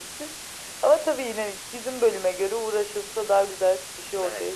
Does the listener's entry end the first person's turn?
Yes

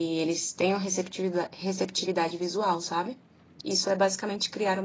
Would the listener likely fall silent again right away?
No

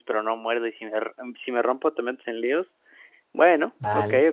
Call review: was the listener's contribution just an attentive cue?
No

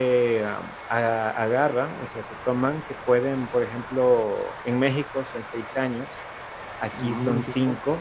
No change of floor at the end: Yes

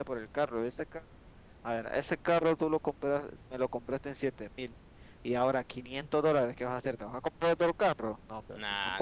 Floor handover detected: Yes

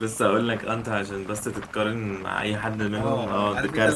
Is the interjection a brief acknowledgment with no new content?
No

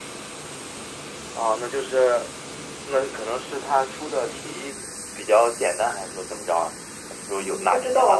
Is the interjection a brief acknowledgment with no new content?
No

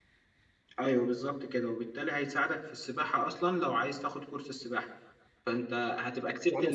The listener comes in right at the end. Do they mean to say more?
Yes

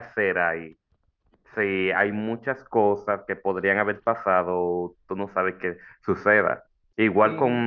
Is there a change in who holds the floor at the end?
No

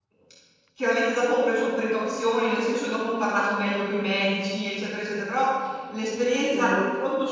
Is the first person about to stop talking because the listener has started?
No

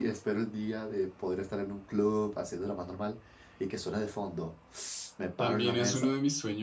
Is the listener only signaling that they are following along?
No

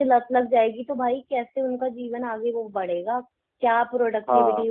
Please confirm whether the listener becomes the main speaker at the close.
No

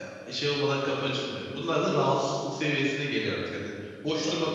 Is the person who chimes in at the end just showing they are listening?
Yes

